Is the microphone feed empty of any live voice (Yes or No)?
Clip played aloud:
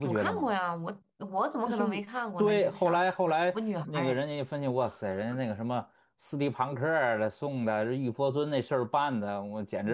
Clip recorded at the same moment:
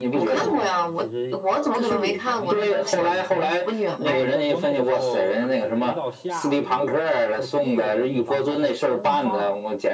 No